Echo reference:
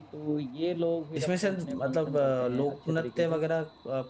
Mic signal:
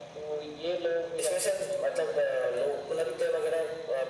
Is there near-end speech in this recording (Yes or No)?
No